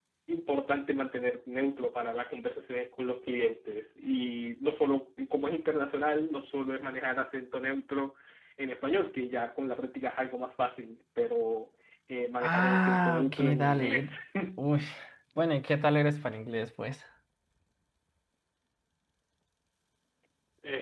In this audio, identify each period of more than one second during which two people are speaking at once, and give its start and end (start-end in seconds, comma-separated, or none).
12.4-14.1